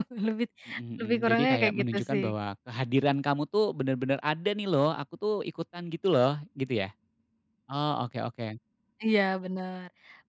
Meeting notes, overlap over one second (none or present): present